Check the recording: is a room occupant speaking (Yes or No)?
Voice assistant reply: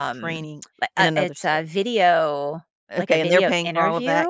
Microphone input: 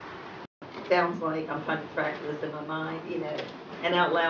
Yes